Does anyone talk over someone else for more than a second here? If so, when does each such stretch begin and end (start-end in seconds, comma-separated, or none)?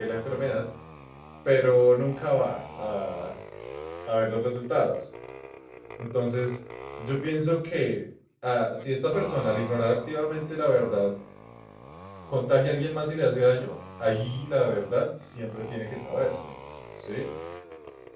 none